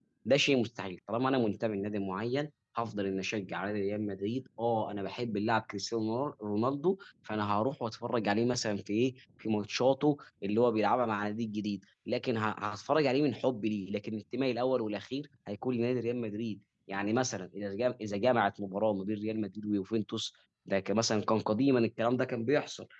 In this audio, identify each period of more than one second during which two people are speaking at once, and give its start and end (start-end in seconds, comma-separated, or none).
none